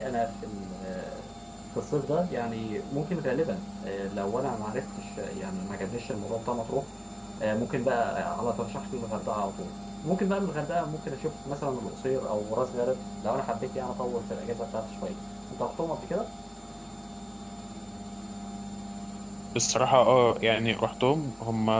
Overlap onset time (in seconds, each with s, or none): none